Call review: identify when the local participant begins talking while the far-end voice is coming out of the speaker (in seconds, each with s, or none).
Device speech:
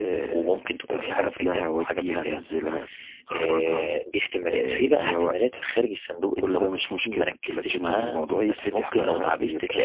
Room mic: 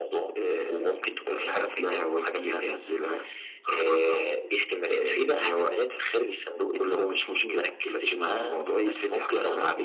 none